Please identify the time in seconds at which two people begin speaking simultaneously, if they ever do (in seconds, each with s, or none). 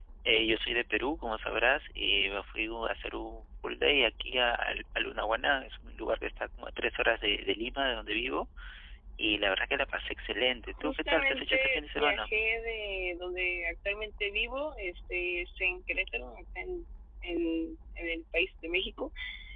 10.7 s